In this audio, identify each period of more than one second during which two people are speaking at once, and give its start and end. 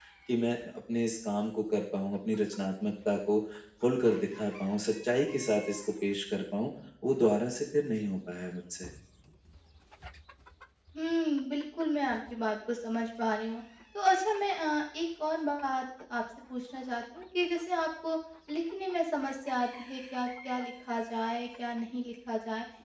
none

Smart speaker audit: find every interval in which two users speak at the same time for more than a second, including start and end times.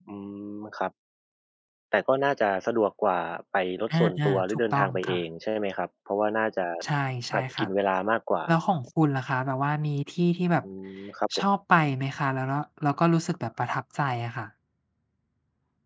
3.9-5.2

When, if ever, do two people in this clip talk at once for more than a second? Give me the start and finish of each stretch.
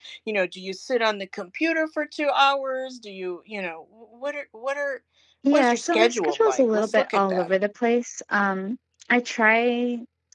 5.5-7.5

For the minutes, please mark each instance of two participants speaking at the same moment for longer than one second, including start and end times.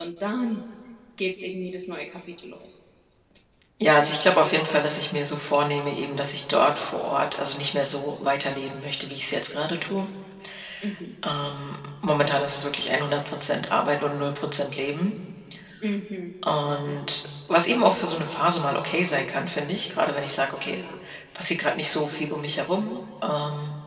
none

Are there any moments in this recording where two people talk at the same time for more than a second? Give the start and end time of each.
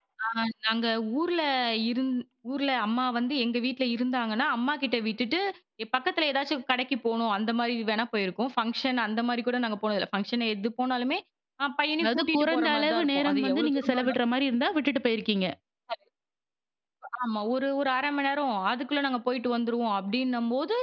12.0-14.0

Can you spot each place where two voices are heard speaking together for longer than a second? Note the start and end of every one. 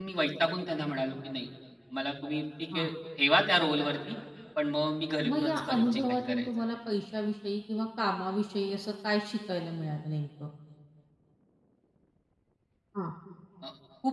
5.3-6.5

